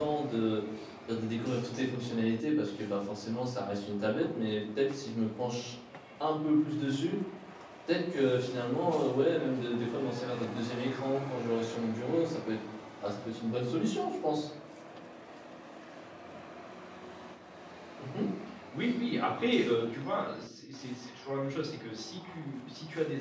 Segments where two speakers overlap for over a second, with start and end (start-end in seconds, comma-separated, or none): none